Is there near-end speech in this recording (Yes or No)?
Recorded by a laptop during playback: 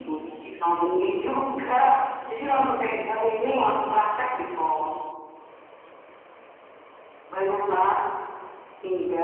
No